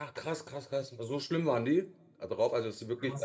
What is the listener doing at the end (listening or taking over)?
taking over